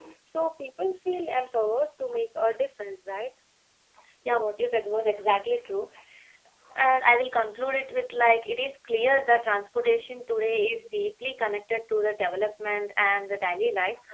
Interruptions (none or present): none